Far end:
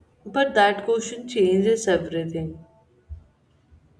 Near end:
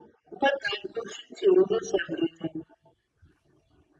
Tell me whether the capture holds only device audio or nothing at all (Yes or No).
Yes